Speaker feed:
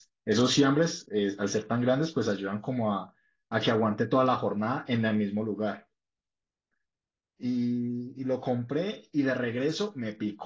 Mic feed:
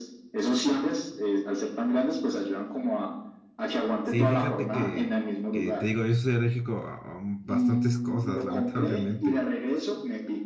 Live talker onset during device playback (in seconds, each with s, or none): 4.0 s